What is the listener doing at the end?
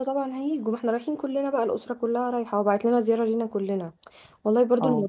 listening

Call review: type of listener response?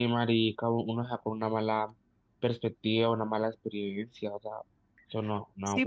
taking over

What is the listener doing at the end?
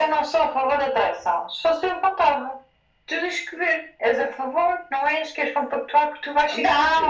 taking over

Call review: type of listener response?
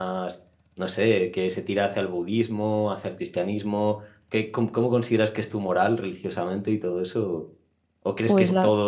listening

